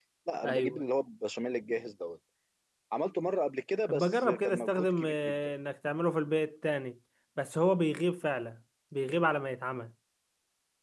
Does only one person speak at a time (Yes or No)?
No